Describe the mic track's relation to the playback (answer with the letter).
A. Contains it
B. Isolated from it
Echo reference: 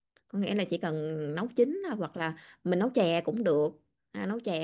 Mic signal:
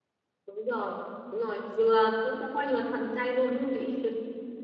B